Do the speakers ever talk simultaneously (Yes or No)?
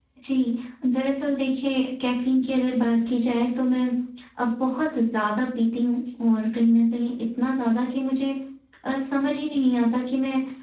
No